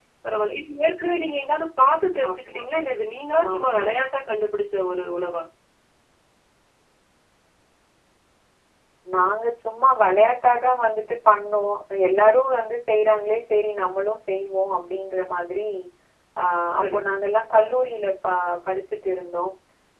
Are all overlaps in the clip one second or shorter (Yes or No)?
Yes